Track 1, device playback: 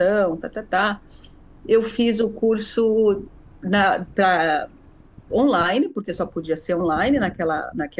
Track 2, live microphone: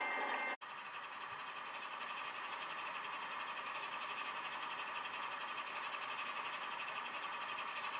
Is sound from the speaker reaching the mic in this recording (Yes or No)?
No